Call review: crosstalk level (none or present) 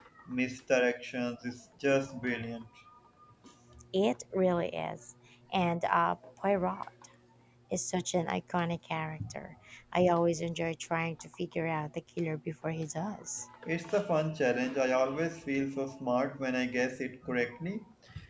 none